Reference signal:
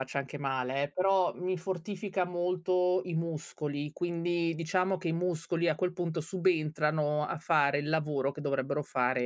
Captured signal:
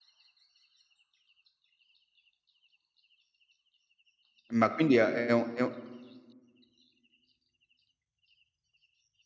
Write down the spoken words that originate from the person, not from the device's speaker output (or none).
ma quindi è è un è un